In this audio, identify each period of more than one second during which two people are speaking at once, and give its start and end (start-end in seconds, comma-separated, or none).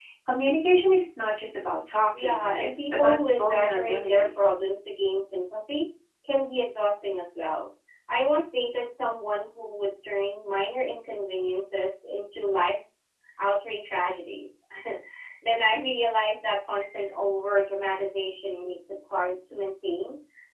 2.2-4.3